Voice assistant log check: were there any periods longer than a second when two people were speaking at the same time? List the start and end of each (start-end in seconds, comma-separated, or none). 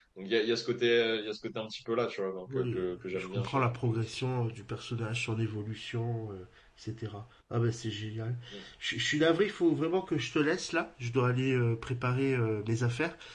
2.6-4.0